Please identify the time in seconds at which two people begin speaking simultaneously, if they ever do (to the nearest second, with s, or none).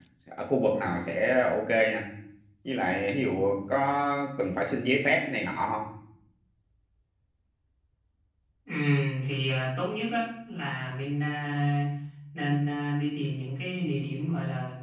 none